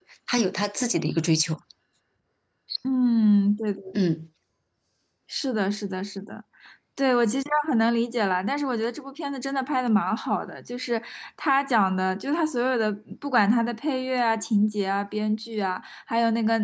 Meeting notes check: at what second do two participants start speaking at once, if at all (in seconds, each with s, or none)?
none